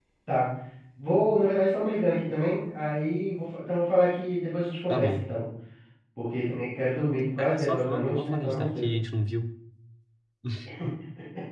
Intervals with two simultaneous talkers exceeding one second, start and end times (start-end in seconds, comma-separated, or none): 7.4-8.9